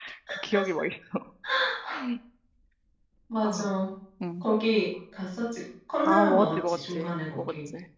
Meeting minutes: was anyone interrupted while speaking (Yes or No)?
Yes